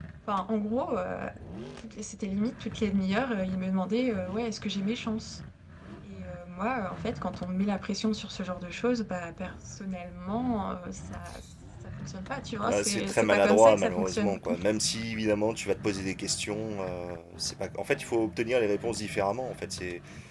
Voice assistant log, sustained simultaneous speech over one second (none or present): present